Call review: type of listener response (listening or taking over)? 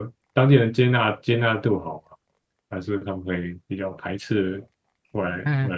taking over